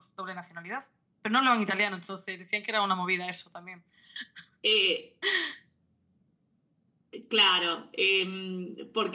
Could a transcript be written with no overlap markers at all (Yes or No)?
Yes